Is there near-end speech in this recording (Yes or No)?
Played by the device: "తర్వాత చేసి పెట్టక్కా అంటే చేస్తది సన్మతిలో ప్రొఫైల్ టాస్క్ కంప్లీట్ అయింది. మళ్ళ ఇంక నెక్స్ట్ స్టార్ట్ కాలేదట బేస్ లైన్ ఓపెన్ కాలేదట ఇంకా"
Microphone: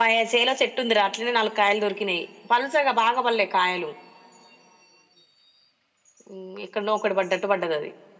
Yes